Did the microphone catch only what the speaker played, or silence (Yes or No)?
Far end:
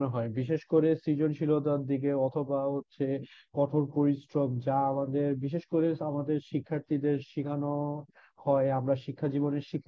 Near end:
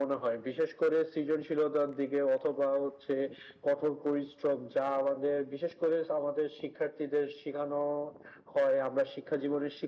Yes